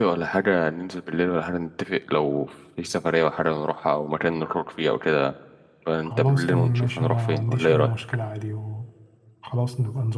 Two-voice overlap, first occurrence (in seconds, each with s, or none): 6.0 s